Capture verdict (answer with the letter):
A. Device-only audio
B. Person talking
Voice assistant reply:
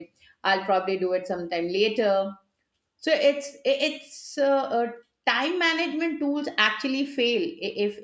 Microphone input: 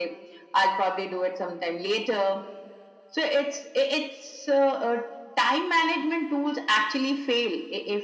A